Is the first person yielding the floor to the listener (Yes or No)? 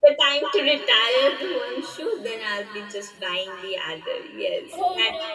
Yes